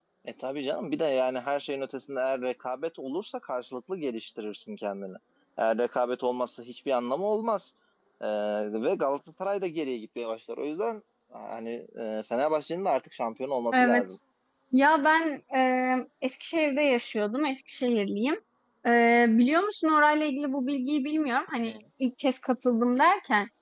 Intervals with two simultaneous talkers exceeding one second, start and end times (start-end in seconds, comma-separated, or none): none